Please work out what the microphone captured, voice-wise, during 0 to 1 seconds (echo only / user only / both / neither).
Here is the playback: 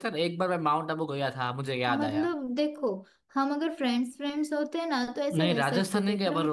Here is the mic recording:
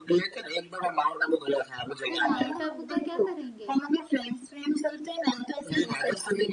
echo only